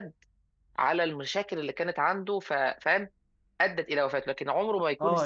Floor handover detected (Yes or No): Yes